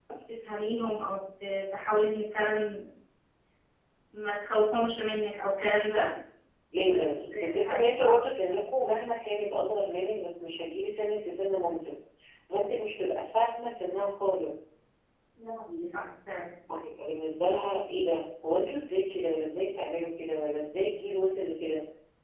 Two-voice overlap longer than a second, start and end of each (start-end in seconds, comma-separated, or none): 6.8-8.2